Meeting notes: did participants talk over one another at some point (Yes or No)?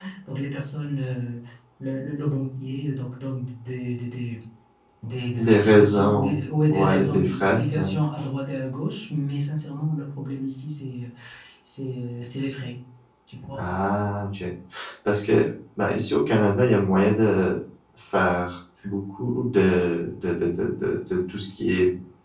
Yes